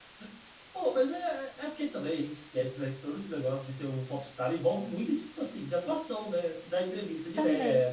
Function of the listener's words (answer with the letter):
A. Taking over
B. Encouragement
B